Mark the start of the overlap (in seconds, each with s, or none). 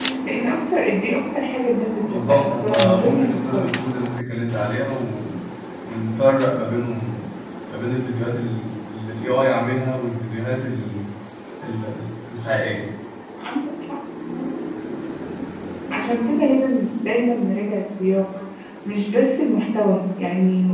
2.0 s